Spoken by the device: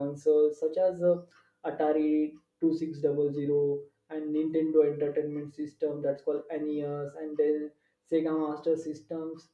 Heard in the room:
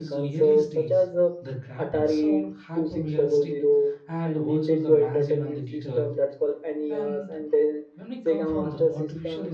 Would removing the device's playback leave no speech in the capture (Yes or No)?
No